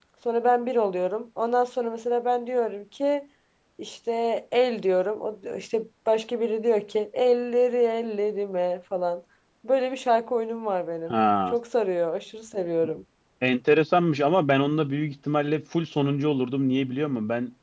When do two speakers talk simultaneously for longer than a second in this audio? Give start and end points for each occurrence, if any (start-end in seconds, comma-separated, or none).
none